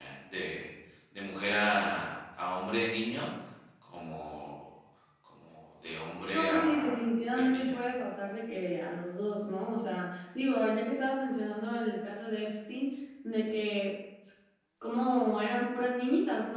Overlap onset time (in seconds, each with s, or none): 6.3 s